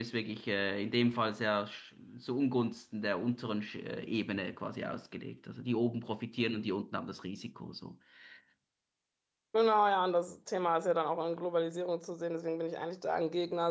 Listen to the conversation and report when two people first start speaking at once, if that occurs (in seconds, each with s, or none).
none